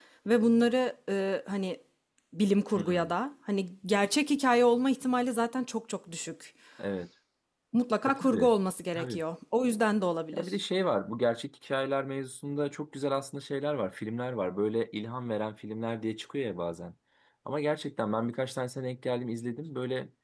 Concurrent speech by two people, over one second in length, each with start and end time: none

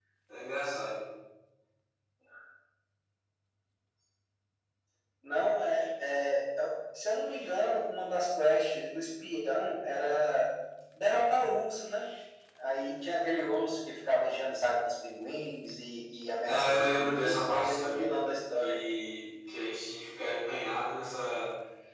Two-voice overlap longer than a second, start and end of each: 16.4-18.1

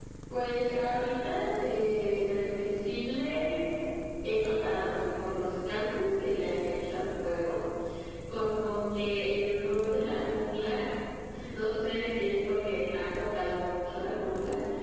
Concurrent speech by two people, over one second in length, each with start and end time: none

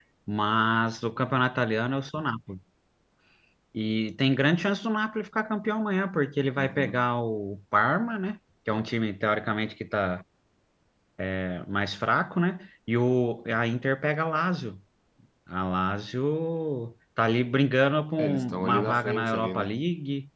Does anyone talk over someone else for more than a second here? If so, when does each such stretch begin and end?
18.2-19.7

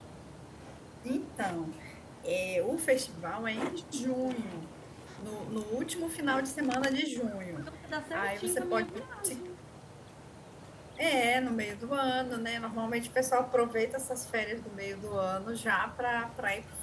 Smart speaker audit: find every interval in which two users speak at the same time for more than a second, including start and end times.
8.1-9.4

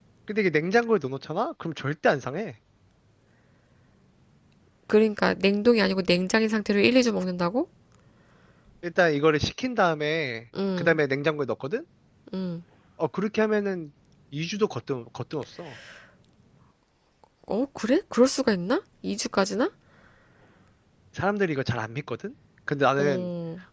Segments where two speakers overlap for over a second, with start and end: none

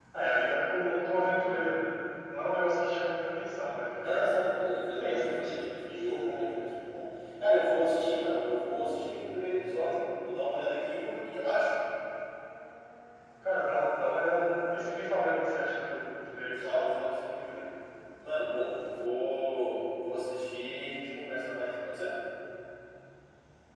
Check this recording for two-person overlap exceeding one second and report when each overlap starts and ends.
5.0-6.4

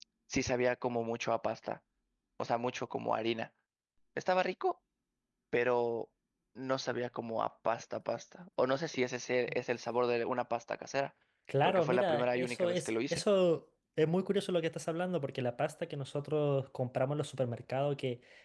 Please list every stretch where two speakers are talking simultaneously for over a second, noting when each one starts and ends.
11.6-13.2

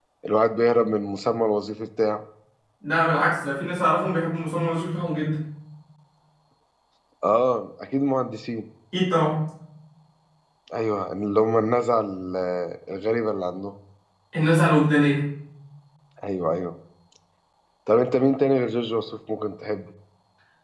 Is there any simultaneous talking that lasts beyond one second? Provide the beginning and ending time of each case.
none

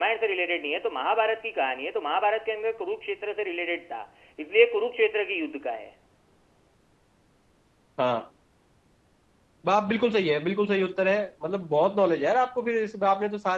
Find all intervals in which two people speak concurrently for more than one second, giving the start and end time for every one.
none

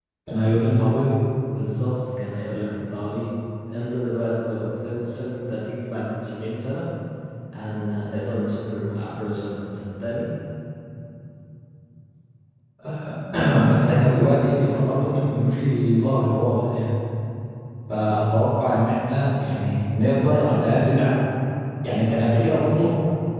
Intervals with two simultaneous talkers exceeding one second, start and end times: none

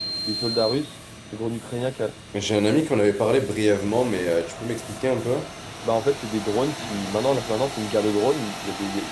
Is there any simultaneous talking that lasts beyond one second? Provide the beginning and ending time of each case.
none

